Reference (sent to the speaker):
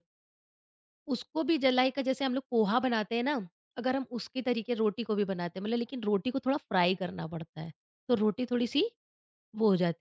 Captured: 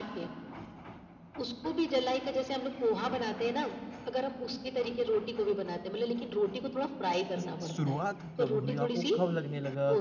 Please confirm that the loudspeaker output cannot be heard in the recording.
No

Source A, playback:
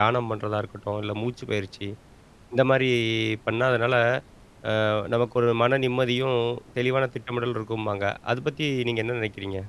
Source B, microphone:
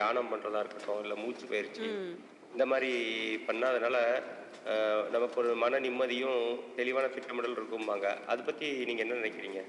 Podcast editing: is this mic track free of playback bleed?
No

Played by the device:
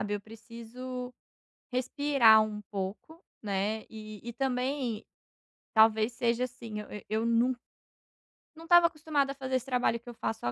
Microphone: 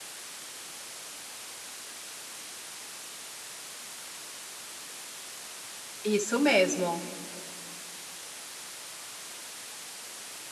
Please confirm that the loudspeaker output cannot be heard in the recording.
Yes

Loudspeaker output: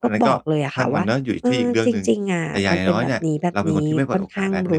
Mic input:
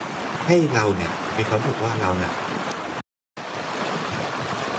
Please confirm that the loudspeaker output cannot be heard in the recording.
Yes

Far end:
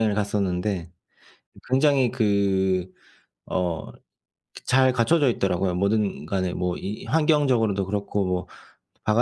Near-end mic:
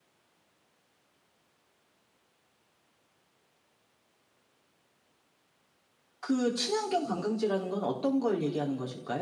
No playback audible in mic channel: Yes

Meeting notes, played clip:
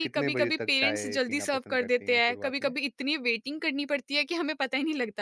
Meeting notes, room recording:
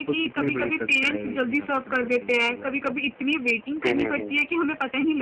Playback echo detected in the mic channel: Yes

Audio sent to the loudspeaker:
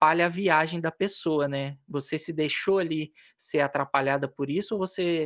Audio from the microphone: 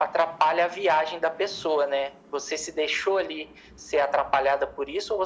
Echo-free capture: No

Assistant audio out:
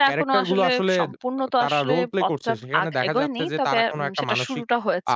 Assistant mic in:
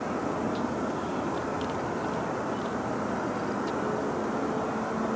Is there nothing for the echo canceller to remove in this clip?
Yes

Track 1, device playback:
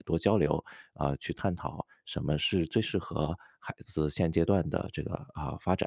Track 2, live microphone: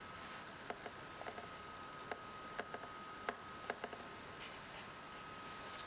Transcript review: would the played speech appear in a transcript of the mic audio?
No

